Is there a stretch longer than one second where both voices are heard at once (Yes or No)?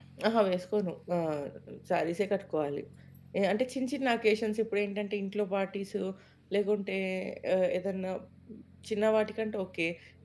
No